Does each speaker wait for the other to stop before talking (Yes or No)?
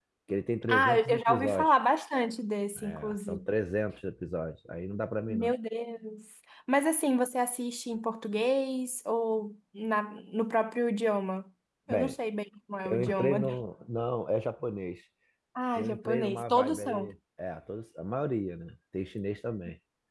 No